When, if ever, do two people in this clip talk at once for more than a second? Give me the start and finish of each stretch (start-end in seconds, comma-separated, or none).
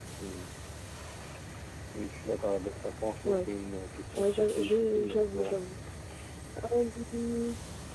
4.2-5.6